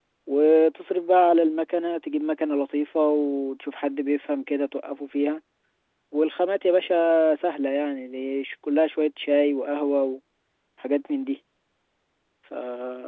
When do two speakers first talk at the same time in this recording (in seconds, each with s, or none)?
none